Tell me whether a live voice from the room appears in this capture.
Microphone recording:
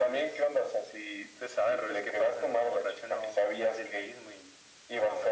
No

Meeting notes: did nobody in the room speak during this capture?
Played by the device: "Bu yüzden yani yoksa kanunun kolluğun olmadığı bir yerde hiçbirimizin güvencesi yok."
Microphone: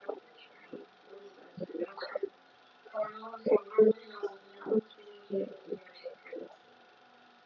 Yes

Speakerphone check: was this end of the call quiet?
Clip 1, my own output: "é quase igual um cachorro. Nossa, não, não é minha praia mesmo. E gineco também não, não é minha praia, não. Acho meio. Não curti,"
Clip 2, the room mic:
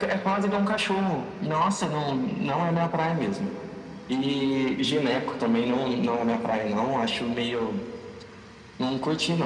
Yes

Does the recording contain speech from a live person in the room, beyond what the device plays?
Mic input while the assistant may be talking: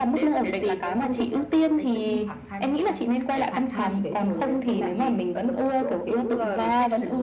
No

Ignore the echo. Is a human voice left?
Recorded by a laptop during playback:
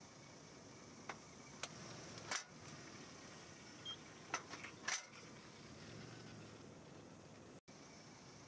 No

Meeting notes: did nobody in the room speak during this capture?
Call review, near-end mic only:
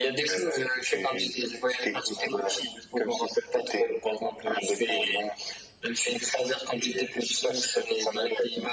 Yes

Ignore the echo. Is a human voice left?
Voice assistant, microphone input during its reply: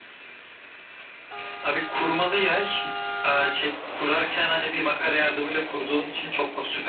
No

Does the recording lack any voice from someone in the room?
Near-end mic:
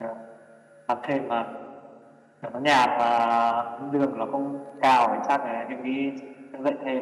No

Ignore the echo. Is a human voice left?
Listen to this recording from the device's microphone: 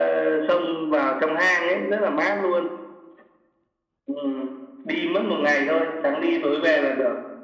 No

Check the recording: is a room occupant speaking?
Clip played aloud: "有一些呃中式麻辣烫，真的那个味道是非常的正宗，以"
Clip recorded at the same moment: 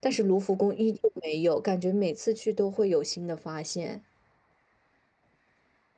Yes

